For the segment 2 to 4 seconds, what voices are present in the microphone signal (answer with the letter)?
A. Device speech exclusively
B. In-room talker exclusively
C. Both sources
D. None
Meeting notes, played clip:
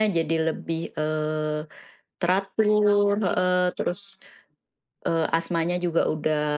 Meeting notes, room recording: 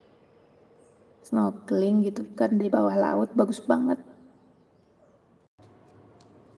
B